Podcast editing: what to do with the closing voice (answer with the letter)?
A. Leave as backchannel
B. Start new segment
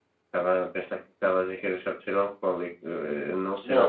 B